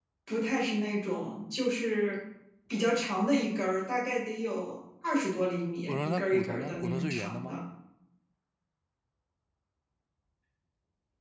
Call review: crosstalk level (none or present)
present